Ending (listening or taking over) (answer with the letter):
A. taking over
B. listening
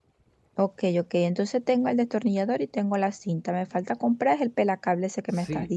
A